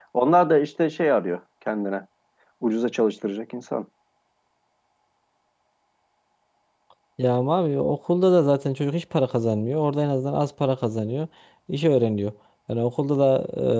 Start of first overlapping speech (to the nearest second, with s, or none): none